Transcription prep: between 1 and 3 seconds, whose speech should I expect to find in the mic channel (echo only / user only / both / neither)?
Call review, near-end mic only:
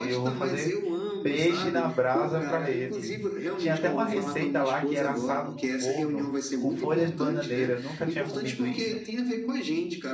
both